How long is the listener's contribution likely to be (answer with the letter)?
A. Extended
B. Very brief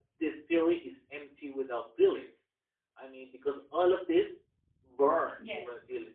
B